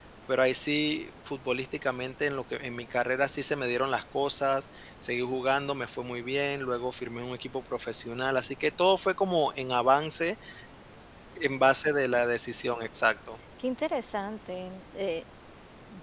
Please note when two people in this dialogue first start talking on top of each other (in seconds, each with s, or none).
none